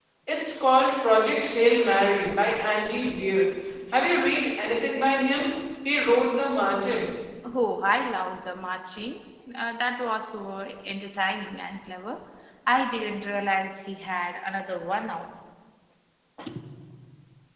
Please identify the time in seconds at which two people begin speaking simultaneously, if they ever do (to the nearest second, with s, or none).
none